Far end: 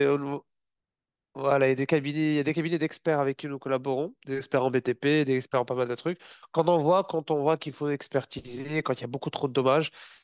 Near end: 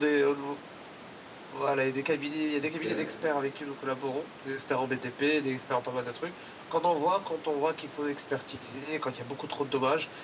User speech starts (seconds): 3 s

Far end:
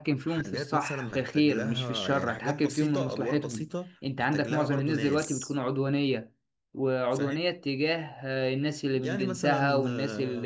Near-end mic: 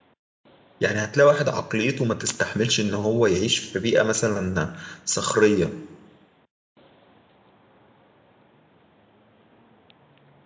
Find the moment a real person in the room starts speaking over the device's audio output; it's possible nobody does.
1 s

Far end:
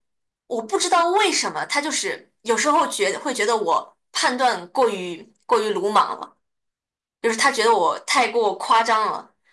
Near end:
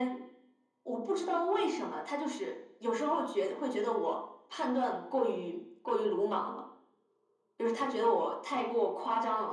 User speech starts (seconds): none

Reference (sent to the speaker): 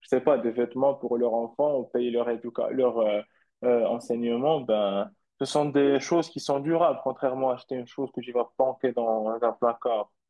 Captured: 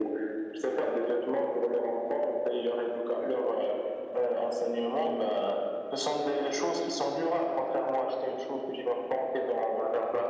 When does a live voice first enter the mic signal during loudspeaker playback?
none

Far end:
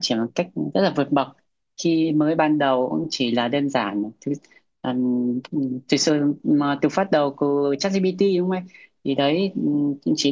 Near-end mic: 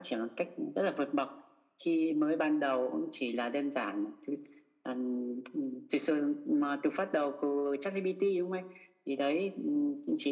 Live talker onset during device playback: none

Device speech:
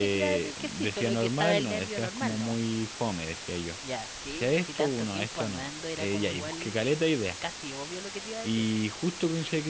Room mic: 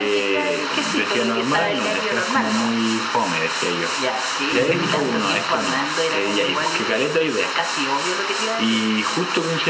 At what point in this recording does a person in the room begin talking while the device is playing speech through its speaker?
5 s

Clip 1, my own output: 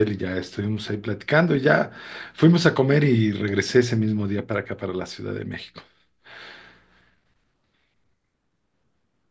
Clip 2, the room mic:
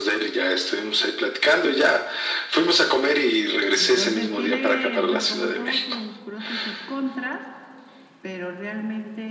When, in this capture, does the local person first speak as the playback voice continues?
4 s

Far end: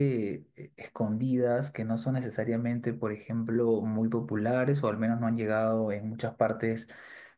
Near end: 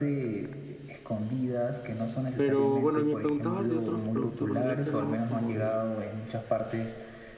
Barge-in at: 2 s

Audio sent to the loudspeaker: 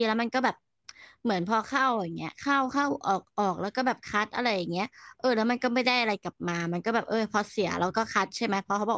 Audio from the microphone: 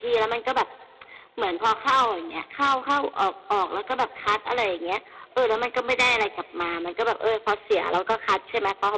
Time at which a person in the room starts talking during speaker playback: none

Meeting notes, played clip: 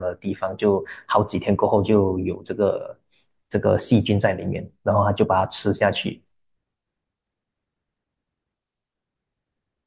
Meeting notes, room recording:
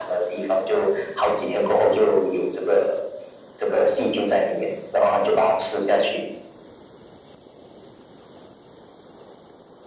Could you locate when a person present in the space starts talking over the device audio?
none

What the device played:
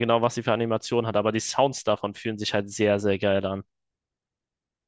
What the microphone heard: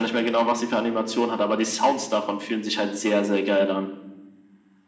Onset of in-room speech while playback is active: none

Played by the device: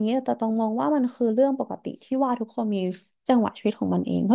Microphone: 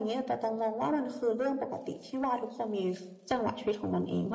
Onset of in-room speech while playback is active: none

